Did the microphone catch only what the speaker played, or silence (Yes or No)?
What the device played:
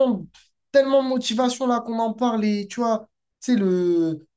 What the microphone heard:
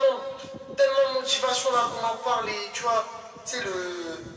Yes